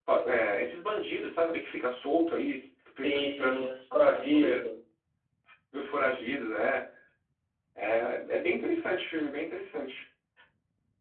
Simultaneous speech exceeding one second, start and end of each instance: 3.0-4.7

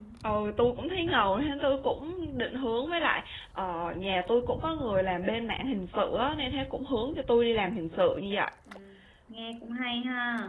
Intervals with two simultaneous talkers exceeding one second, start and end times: none

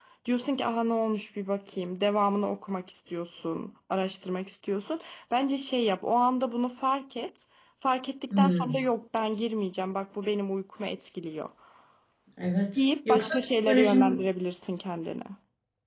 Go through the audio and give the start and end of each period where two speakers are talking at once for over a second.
12.8-14.2

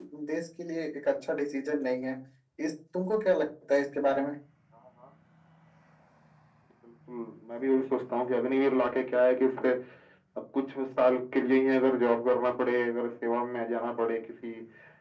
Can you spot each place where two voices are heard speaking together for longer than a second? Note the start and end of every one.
none

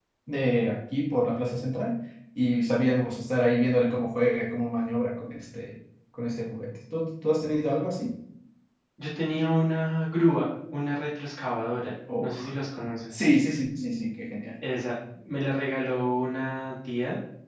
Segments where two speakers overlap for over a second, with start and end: none

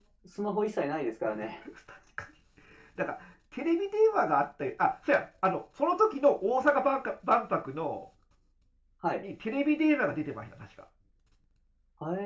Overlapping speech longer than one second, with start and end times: none

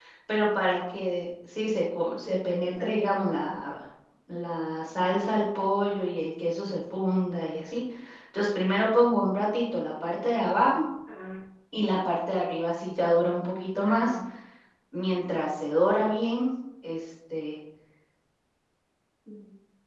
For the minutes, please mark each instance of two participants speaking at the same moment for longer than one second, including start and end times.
2.2-3.5

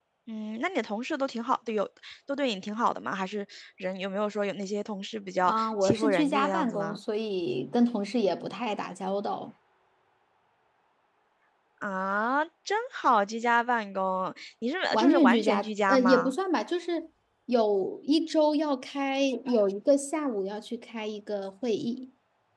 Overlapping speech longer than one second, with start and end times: 5.4-7.0, 14.9-16.3

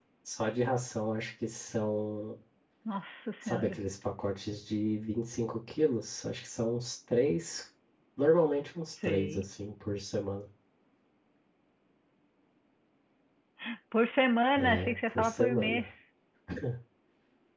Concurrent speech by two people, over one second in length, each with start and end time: 14.6-15.8

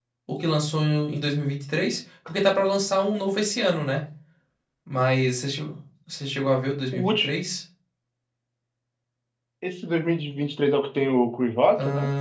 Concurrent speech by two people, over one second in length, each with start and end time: none

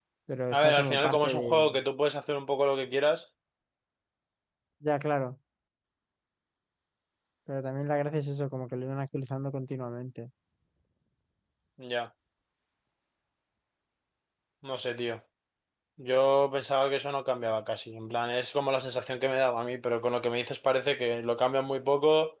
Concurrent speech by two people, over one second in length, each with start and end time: 0.5-1.8

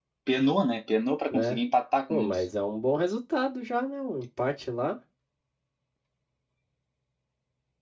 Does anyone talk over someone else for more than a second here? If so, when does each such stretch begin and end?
none

